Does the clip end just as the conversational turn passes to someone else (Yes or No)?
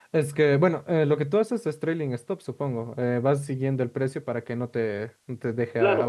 Yes